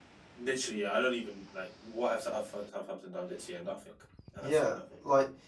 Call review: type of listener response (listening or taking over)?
taking over